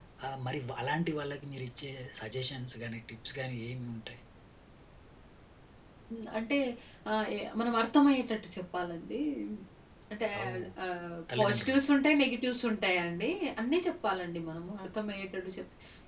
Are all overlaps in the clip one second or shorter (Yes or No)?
Yes